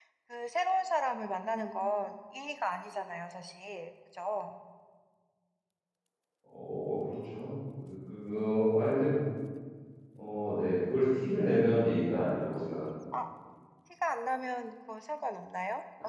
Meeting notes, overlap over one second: none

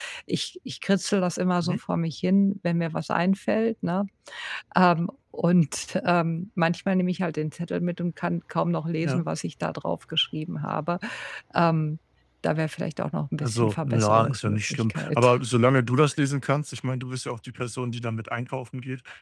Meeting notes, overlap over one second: present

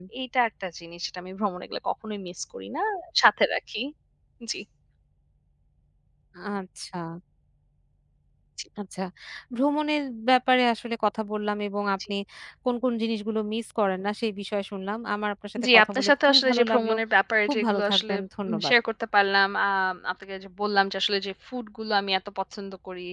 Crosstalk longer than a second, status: present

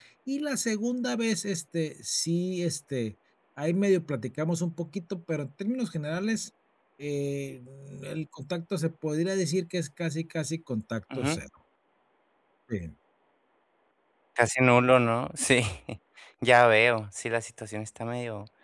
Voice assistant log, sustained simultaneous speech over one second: none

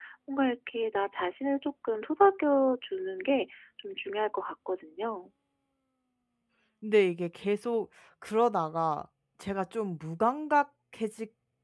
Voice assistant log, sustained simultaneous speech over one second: none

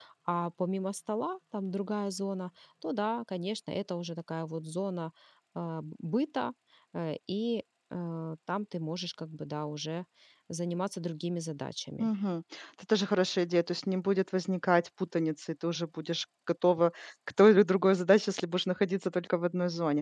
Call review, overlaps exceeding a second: none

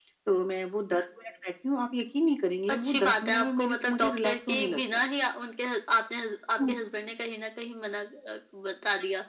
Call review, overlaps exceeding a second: present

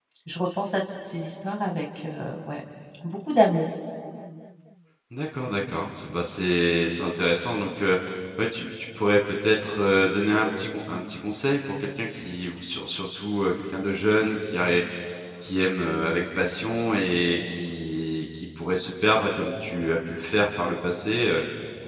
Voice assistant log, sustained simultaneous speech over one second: none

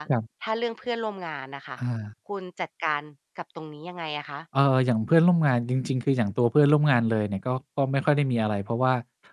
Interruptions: none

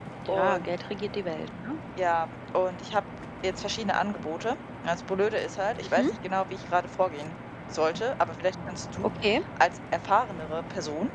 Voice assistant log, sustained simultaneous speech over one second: none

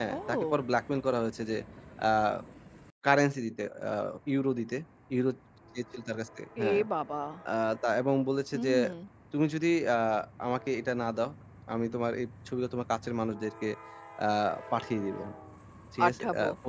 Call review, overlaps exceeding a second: none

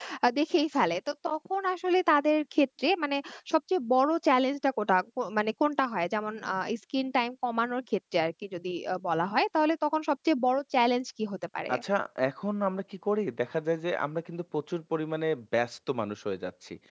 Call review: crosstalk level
none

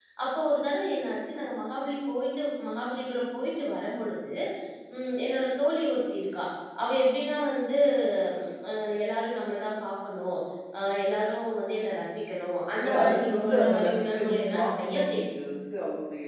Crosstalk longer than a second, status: present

